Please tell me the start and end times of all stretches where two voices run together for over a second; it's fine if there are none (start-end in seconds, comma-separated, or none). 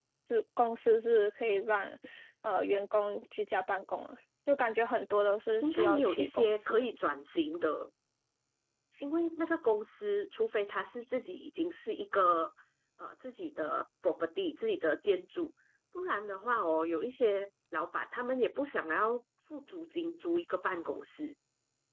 5.6-6.9